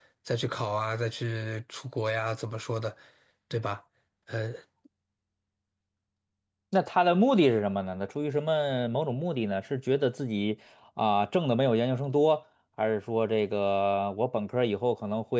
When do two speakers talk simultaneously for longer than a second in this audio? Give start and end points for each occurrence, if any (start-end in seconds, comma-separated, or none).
none